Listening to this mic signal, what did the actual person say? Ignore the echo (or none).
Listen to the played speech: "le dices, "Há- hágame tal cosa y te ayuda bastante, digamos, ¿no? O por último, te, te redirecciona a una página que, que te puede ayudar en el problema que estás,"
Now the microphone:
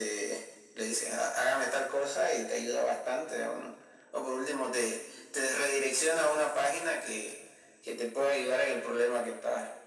none